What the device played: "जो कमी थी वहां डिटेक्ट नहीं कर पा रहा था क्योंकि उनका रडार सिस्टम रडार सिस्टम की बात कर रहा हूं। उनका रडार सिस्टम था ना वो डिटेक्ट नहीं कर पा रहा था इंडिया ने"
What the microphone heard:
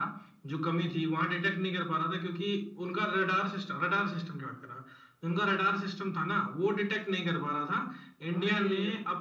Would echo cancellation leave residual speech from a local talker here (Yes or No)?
Yes